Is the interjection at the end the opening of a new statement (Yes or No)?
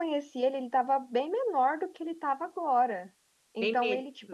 No